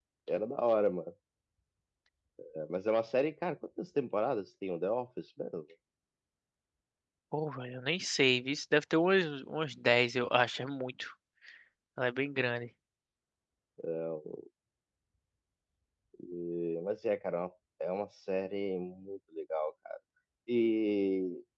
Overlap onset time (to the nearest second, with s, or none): none